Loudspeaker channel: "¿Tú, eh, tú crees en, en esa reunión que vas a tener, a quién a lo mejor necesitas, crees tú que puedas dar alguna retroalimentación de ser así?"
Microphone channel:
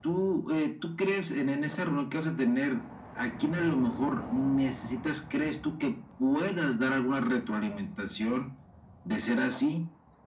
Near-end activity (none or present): none